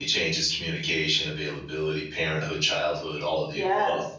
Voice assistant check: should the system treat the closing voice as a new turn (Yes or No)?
Yes